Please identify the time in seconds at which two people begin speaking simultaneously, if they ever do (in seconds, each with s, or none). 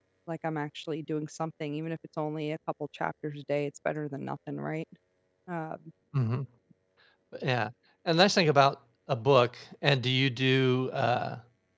none